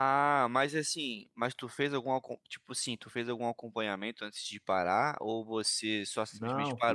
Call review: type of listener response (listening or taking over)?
taking over